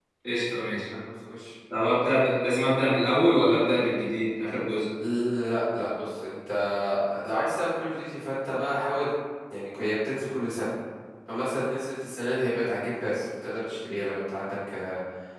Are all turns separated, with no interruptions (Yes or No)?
Yes